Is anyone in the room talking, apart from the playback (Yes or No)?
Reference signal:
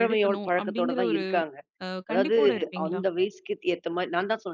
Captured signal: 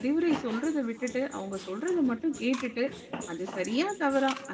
Yes